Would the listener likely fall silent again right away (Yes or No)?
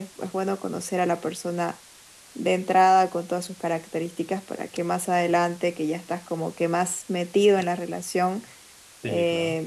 Yes